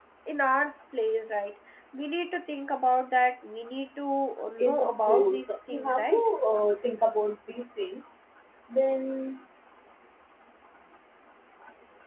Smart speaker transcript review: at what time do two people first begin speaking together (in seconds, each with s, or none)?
4.7 s